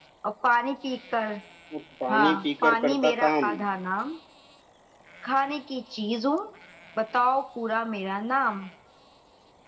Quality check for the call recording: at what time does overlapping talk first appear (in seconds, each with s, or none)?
2.1 s